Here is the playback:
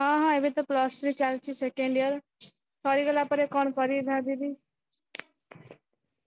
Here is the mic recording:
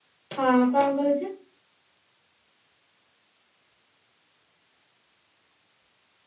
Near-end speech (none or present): present